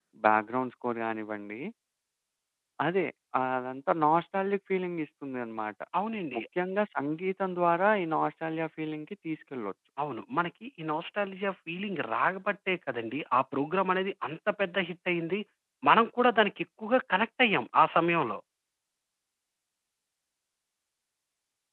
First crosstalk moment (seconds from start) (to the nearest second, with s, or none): none